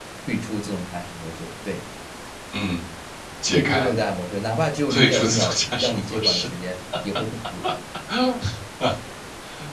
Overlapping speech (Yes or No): Yes